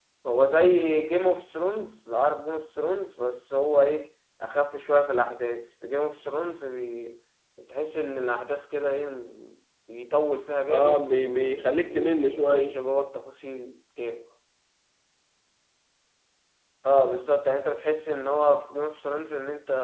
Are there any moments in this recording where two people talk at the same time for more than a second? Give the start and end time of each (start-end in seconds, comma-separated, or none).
10.7-12.8